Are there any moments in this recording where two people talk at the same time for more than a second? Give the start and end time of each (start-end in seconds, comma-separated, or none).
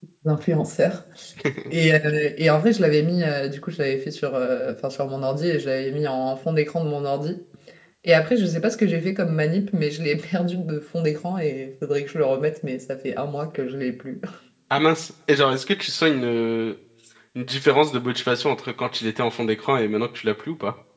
none